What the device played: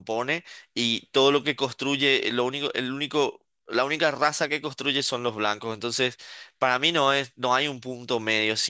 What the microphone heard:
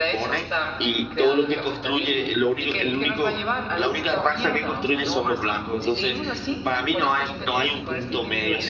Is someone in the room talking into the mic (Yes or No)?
Yes